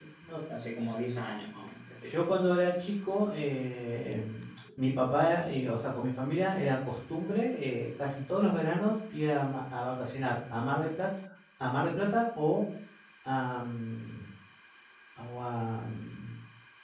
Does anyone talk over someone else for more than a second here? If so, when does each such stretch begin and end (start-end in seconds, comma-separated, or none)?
none